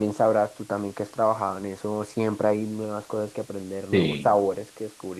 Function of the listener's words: listening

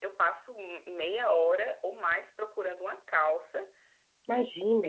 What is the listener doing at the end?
listening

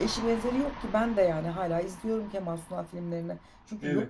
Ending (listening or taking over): listening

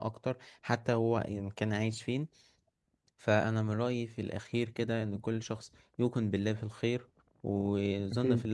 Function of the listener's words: listening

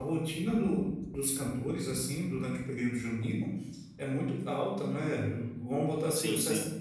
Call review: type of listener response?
listening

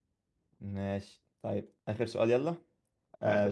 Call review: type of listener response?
listening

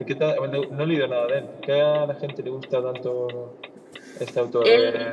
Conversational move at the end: taking over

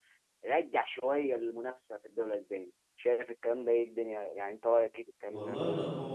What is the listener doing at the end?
taking over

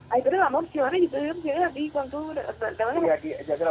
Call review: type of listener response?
taking over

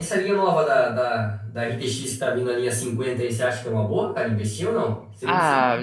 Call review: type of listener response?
taking over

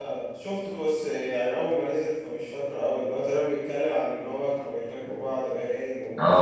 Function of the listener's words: taking over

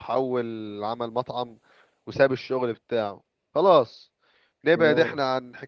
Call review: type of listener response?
listening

